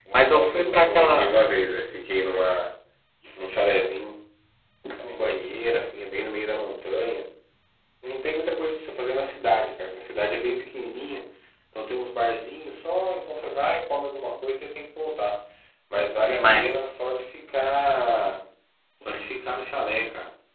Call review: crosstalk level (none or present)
present